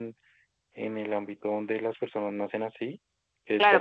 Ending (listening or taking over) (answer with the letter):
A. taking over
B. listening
A